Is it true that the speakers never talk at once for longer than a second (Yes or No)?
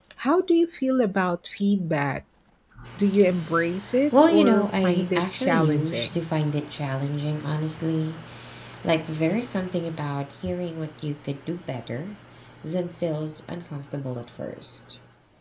No